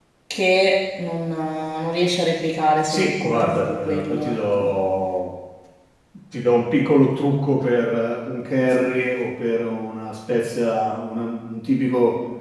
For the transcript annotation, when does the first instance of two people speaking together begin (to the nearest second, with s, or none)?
3 s